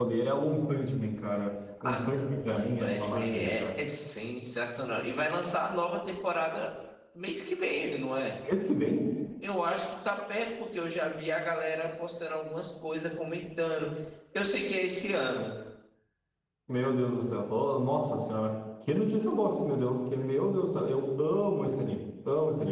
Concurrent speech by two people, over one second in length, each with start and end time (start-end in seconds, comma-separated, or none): 1.8-3.6